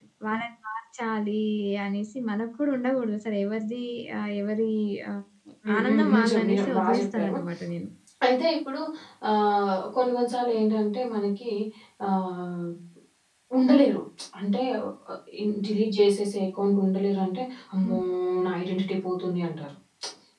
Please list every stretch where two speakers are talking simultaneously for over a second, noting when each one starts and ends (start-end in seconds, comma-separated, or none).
5.8-7.3